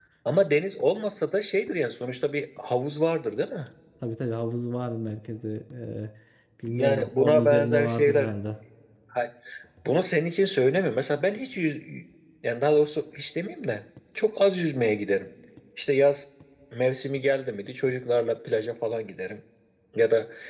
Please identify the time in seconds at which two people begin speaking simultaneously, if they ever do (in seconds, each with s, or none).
6.6 s